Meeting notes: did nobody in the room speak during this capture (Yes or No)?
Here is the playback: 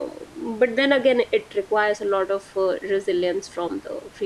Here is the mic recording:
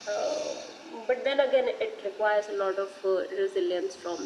Yes